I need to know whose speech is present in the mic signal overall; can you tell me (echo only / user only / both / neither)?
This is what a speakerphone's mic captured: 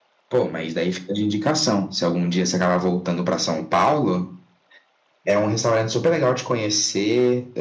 echo only